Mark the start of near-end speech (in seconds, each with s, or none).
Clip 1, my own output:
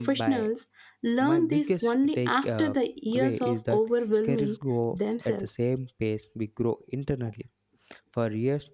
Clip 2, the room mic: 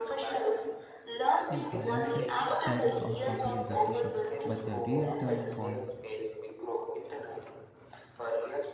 1.5 s